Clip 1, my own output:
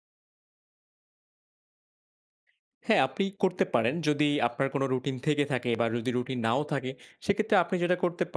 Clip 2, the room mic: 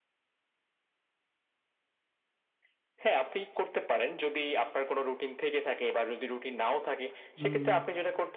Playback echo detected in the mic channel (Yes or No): Yes